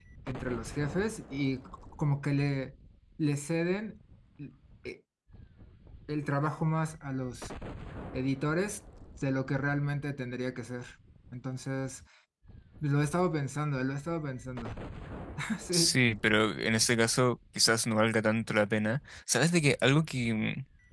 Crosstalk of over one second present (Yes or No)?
No